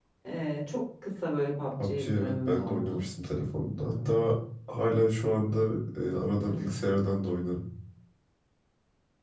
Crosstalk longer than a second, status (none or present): present